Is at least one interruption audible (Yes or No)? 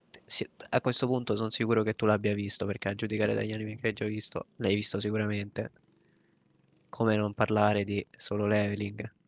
No